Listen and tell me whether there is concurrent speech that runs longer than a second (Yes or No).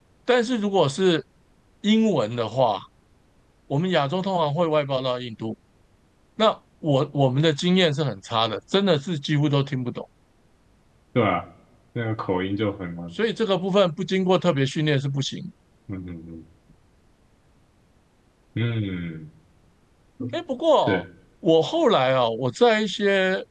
No